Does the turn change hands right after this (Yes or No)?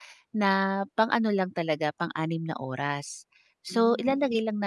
No